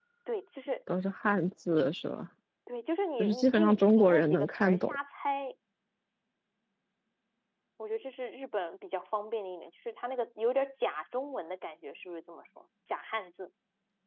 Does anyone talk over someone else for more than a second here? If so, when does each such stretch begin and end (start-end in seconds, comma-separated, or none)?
3.2-5.0